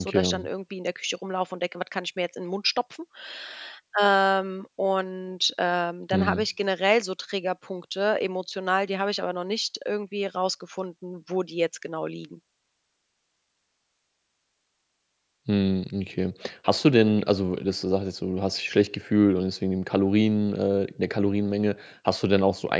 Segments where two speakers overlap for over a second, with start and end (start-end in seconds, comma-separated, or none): none